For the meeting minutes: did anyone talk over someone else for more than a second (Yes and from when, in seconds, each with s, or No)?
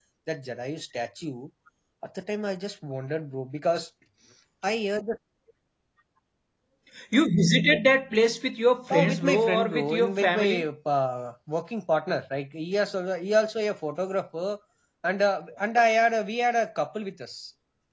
Yes, from 8.9 s